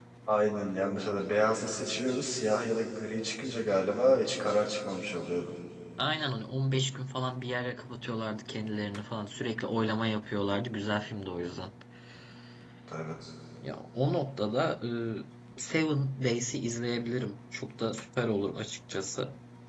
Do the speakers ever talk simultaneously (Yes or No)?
No